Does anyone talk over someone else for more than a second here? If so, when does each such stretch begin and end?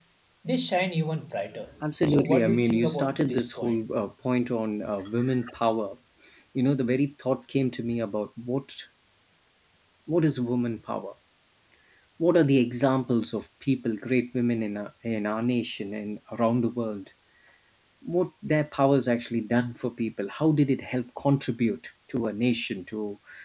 2.1-3.8

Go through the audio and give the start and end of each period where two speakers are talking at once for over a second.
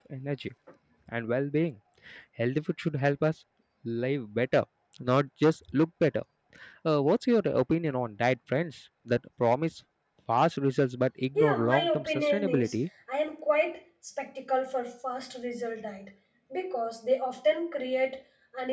11.3-12.7

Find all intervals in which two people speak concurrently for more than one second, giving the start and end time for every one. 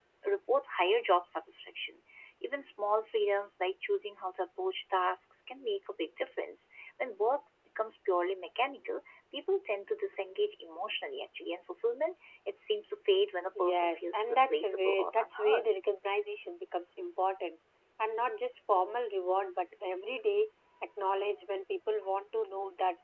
13.6-15.7

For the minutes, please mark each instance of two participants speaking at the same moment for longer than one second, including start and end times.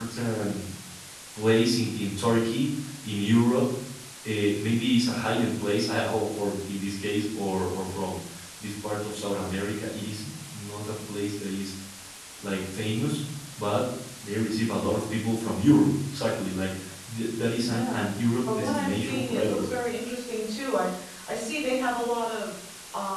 18.4-19.7

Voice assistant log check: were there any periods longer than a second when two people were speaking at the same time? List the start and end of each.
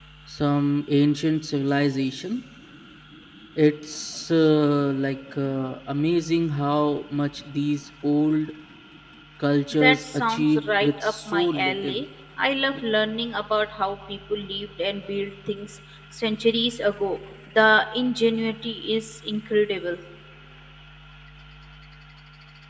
9.8-12.0

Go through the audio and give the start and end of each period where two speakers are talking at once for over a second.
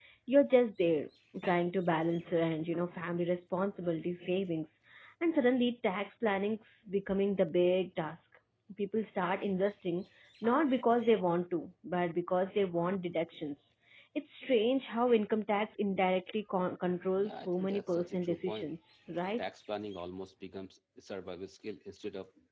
17.2-18.7

